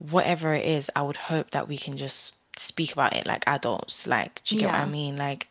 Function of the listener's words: listening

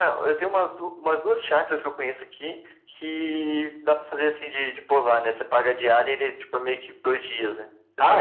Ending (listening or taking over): taking over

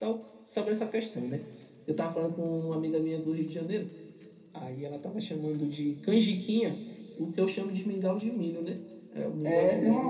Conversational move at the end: taking over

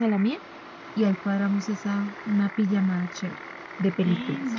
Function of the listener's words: taking over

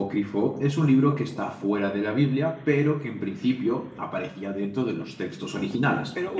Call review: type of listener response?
taking over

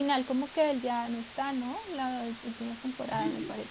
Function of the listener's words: taking over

